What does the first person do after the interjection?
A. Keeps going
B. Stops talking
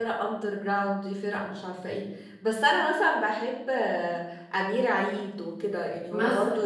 A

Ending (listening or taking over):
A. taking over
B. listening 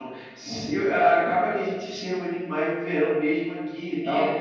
B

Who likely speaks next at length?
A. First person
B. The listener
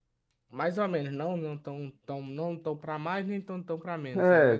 B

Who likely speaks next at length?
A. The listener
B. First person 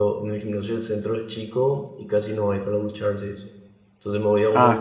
B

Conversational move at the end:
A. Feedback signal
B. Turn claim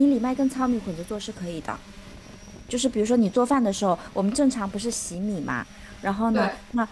A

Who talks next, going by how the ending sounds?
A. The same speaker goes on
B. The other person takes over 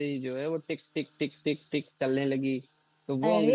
A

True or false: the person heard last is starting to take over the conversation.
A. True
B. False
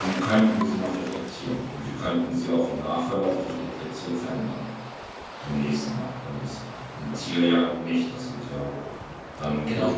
B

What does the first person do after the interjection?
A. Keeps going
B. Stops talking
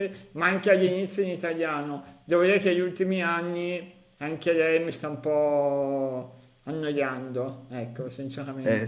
B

